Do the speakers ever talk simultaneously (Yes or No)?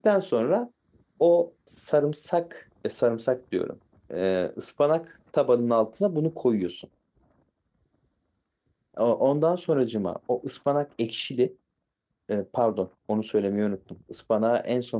No